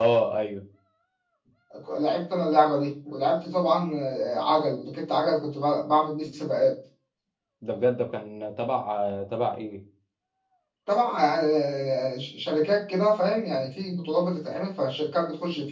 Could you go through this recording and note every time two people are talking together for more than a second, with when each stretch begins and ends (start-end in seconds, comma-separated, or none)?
none